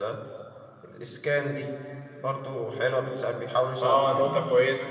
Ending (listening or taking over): taking over